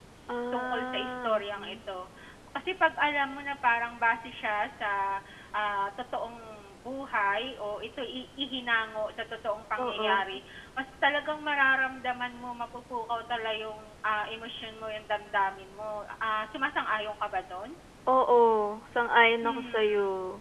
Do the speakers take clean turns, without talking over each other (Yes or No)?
No